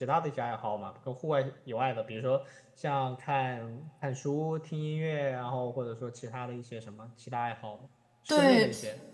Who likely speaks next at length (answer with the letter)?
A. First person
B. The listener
B